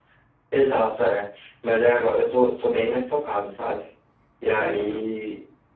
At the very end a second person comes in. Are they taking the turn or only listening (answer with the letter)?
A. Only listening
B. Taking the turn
A